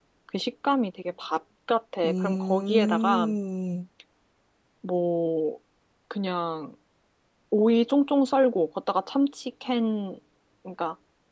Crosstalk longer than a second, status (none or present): present